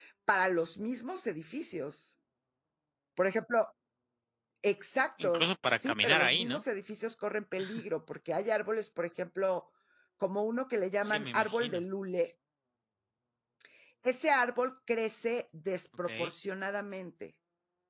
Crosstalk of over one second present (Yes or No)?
Yes